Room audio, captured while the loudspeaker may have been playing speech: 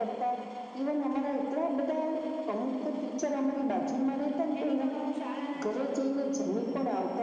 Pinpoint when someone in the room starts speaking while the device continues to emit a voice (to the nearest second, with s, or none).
5 s